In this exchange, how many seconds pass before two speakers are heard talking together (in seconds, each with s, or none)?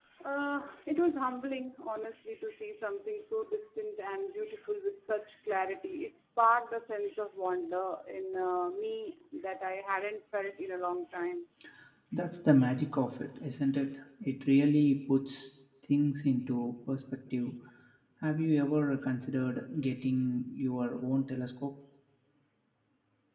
none